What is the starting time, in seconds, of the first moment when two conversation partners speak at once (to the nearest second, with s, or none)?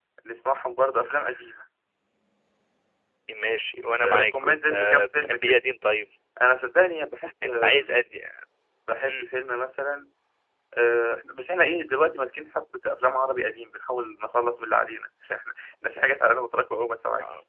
4 s